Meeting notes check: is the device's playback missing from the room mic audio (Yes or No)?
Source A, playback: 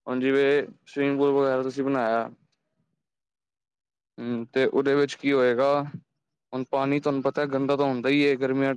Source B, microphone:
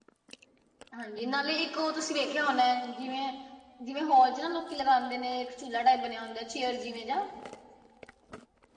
Yes